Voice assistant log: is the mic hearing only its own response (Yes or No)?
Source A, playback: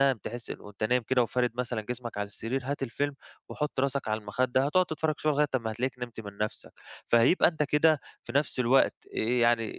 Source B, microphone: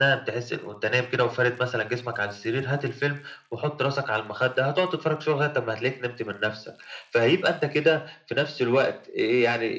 Yes